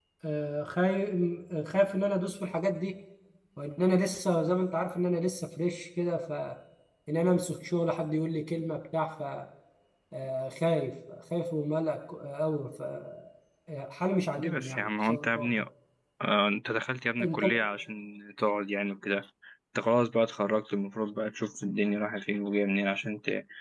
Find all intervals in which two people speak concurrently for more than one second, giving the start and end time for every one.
14.4-15.6

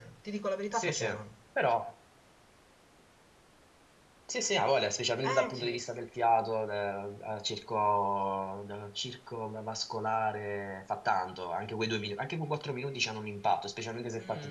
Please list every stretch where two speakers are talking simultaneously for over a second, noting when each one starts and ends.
none

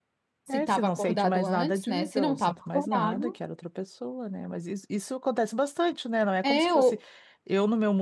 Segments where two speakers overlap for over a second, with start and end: 0.5-3.3

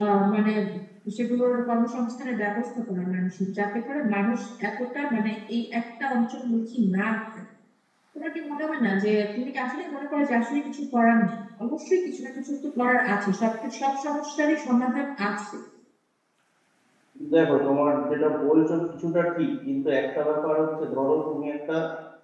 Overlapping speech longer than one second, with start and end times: none

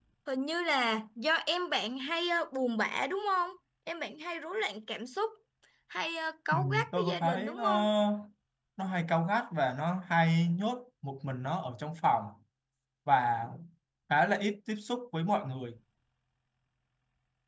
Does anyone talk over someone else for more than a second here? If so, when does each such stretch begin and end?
6.5-7.7

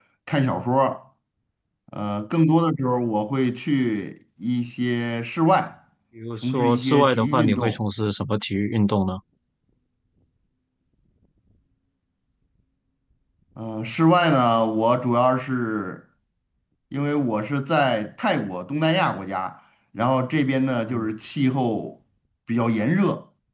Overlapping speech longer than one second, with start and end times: 6.4-7.8

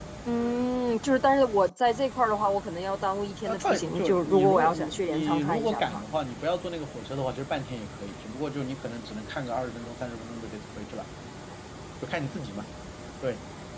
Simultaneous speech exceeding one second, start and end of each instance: 3.5-6.0

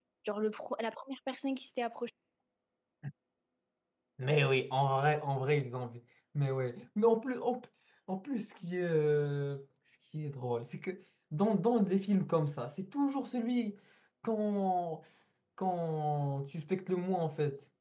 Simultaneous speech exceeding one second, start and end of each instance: none

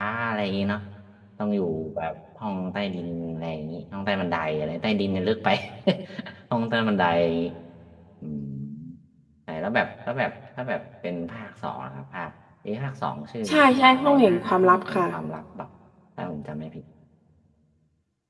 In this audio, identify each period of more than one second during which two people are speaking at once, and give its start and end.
13.5-15.0

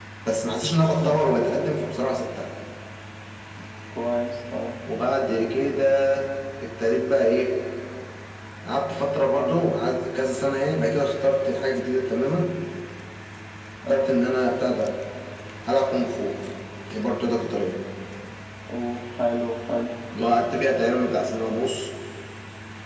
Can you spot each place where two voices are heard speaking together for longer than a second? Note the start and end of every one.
none

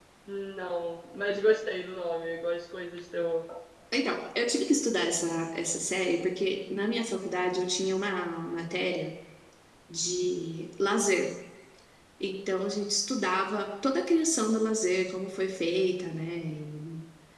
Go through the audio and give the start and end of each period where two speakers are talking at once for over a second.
none

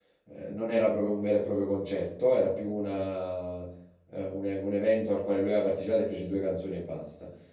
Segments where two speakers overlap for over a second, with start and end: none

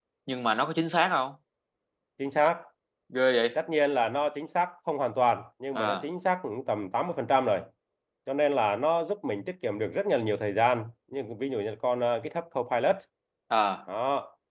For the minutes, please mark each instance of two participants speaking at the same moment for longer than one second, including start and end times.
none

